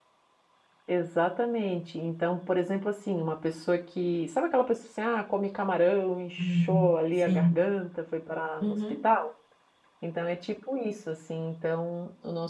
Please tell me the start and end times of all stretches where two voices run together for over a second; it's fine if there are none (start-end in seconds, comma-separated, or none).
6.4-7.7